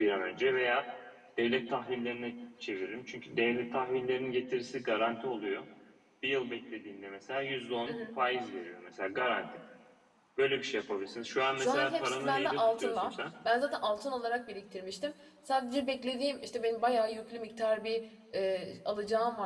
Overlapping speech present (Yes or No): Yes